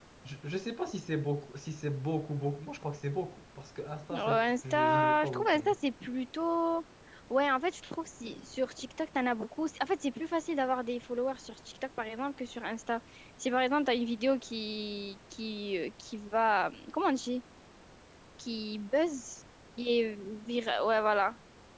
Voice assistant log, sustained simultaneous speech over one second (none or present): present